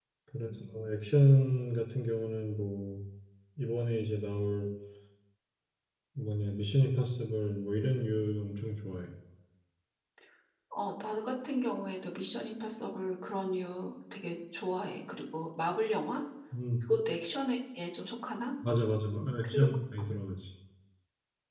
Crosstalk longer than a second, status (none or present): none